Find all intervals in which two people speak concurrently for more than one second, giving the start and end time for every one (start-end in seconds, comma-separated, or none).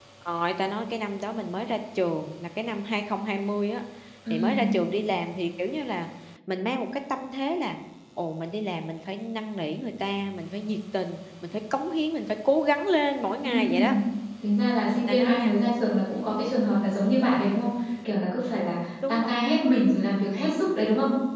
none